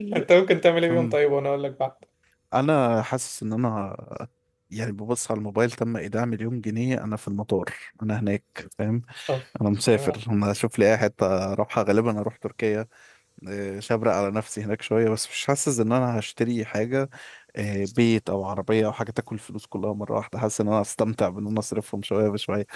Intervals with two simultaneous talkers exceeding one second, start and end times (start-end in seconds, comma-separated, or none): none